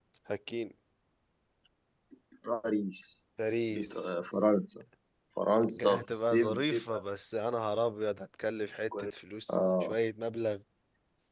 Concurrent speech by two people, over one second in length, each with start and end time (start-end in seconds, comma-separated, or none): 5.7-7.0